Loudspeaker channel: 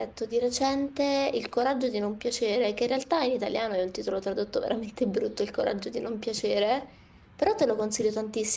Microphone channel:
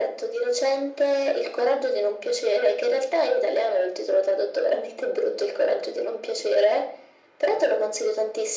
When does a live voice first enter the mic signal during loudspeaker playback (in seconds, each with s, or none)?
none